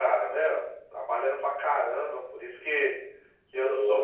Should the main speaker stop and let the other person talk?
No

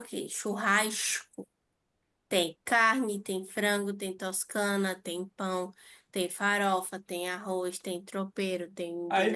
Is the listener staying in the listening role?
No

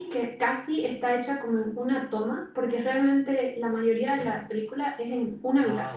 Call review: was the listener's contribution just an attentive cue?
Yes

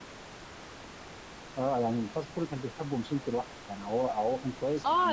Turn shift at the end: Yes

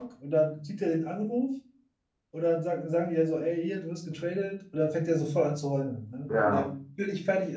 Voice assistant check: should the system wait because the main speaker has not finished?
Yes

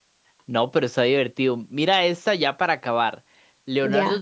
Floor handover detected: No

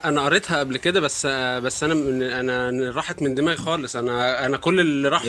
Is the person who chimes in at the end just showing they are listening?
Yes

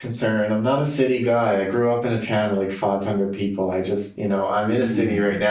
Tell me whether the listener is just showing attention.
Yes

